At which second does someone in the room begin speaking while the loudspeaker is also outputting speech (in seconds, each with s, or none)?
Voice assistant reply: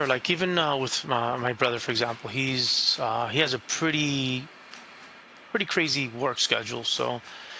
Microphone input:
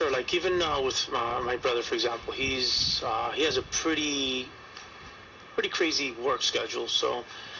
none